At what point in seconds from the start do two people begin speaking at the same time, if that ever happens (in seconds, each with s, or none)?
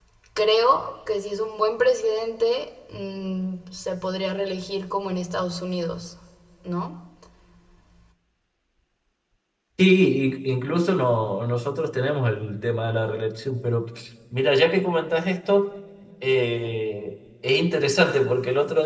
none